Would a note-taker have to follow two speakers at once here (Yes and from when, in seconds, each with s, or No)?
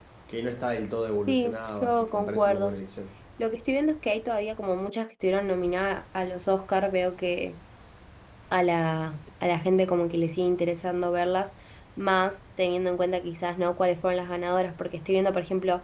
Yes, from 1.3 s